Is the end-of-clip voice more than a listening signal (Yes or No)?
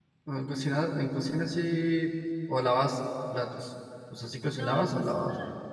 Yes